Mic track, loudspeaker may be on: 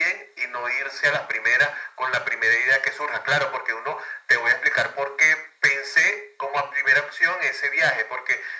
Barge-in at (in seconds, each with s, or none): none